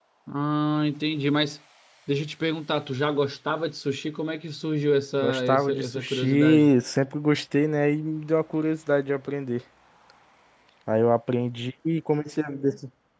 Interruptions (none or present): present